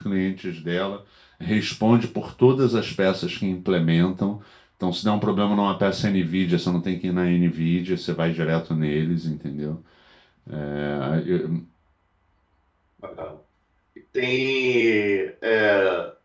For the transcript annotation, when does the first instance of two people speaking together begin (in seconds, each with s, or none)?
none